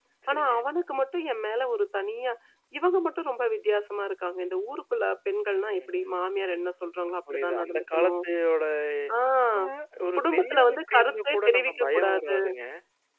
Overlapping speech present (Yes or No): Yes